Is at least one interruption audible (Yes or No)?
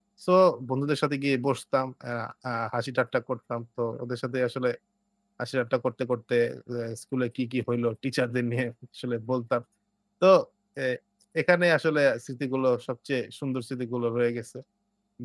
No